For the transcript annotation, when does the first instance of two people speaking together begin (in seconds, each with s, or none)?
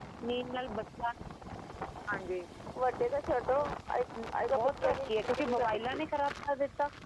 4.5 s